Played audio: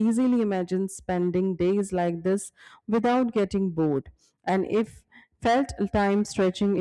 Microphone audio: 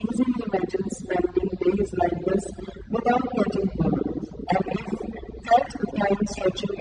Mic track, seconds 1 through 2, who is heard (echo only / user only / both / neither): echo only